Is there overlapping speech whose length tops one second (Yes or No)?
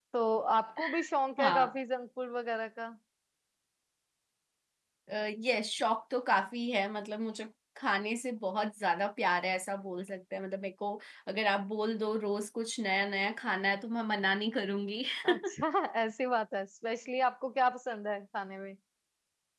No